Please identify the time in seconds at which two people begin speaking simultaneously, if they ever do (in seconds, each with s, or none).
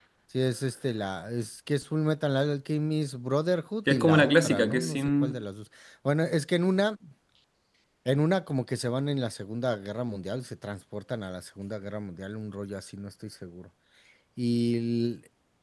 3.9 s